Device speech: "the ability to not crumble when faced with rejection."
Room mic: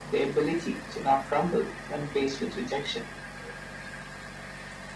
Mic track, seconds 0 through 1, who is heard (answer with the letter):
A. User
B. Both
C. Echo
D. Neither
C